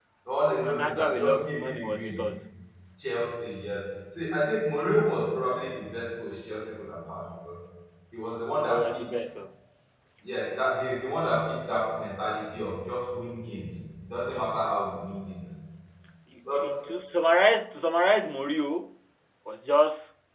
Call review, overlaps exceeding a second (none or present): present